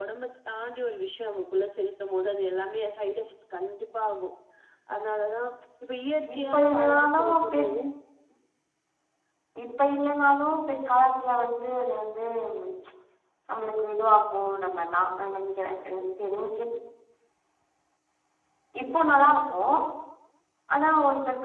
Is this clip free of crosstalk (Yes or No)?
No